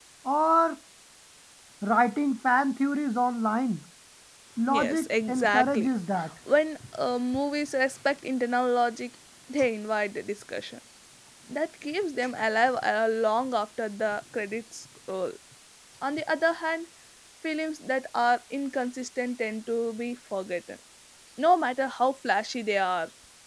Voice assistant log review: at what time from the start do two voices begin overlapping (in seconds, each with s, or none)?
4.7 s